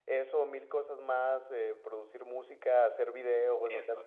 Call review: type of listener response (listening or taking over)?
taking over